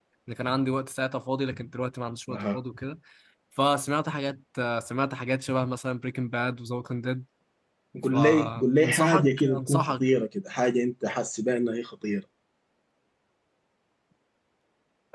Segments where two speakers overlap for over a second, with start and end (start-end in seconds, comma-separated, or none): 8.1-10.0